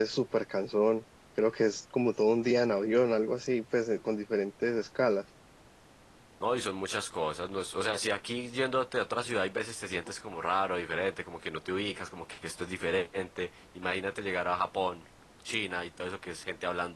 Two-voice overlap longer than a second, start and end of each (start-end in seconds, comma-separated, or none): none